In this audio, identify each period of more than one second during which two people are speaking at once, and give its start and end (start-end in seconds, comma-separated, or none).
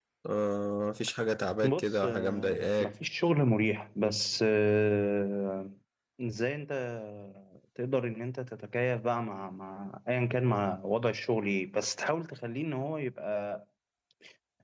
1.6-2.9